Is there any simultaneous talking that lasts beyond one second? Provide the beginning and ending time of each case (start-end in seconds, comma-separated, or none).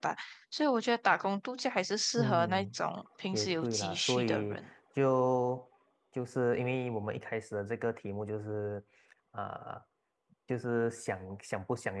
3.3-4.7